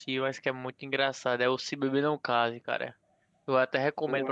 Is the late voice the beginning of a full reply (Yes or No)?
No